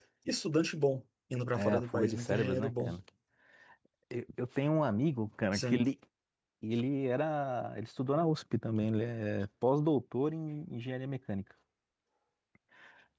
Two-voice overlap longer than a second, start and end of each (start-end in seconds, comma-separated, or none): 1.5-2.9